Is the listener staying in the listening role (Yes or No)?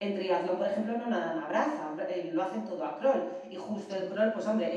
Yes